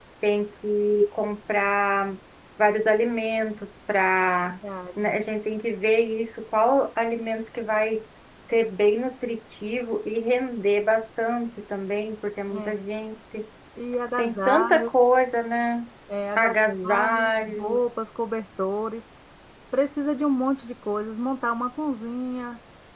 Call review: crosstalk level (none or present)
present